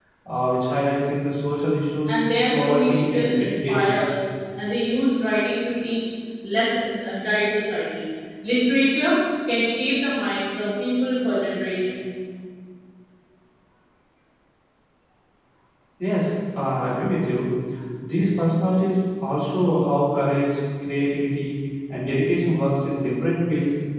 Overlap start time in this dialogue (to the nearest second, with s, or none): 3 s